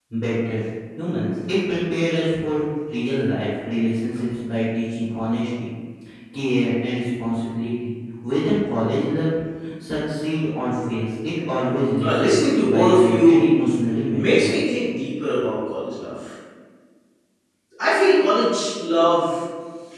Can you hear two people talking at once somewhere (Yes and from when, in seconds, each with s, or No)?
Yes, from 12.0 s